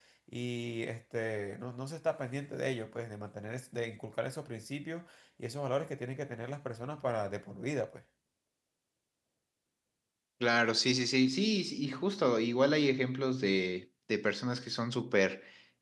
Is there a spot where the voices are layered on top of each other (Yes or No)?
No